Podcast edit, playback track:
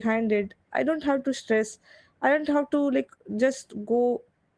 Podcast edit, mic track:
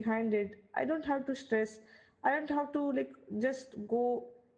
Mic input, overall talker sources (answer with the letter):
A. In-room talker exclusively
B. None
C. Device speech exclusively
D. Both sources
C